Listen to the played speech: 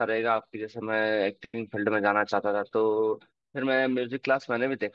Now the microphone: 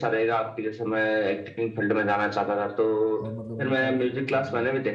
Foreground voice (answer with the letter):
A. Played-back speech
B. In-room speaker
A